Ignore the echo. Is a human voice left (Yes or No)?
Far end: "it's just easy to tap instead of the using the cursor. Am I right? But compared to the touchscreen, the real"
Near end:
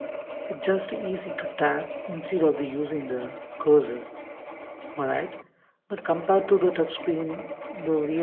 No